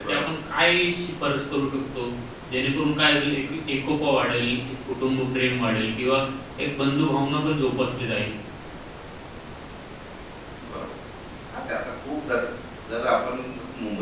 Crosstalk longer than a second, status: none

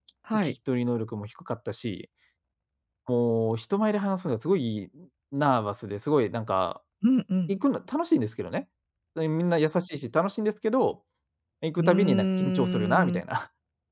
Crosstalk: present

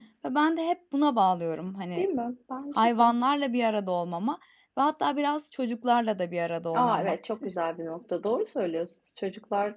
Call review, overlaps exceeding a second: none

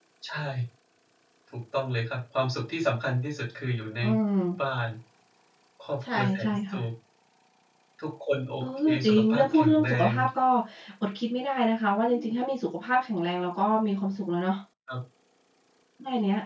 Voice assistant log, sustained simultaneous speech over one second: present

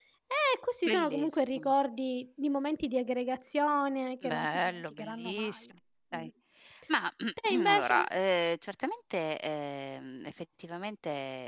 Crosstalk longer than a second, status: present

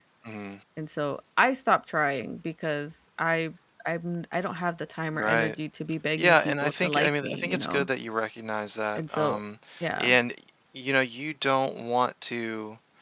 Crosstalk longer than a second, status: present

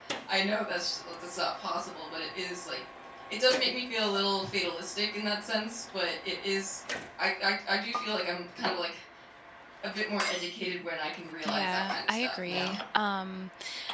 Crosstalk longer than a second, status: present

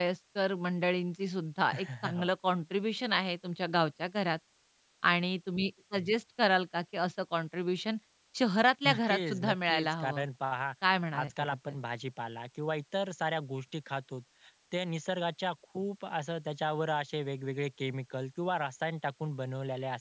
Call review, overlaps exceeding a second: present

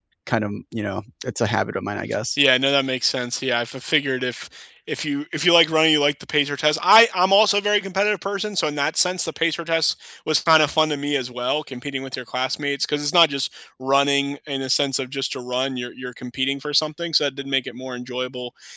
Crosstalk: none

